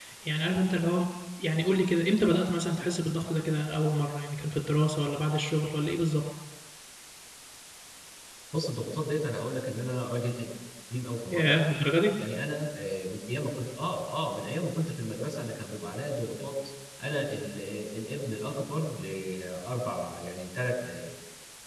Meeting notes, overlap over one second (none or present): none